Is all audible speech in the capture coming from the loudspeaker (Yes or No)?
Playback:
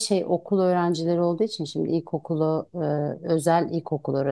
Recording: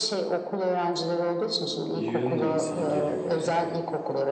No